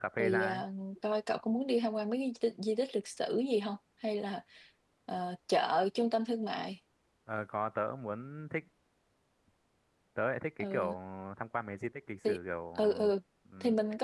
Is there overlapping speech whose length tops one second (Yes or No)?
No